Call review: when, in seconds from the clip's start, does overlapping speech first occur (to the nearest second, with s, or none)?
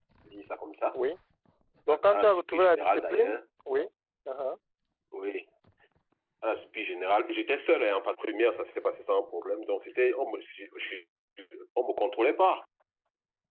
2 s